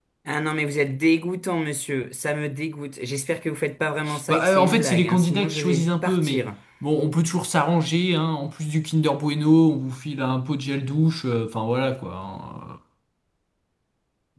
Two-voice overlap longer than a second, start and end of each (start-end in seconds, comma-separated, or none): 4.3-6.5